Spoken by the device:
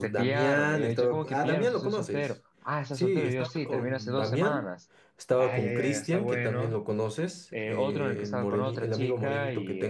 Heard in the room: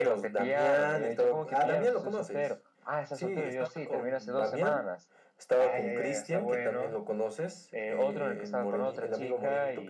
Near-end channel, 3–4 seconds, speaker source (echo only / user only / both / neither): echo only